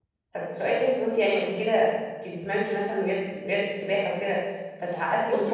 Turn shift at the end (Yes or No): Yes